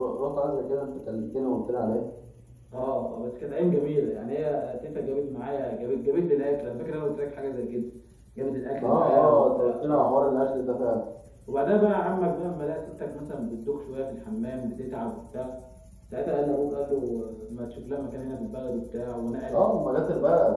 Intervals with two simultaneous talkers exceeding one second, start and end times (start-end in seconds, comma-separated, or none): 8.8-10.1